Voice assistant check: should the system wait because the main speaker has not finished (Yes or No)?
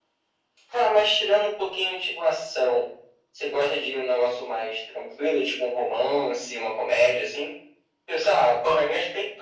Yes